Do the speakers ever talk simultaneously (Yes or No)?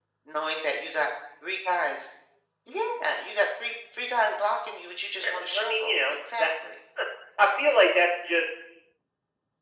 Yes